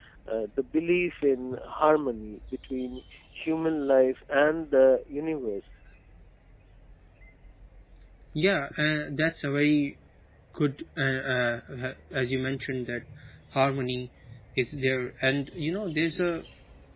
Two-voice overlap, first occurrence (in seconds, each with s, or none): none